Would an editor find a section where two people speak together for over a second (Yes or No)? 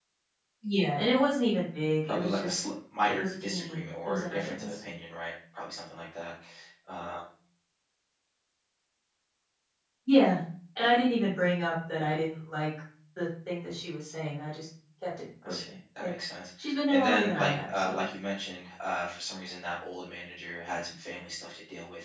Yes